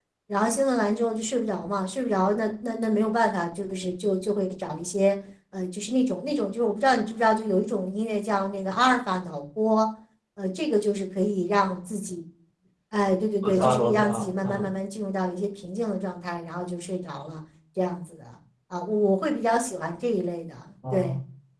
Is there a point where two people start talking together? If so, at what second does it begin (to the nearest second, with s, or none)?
13 s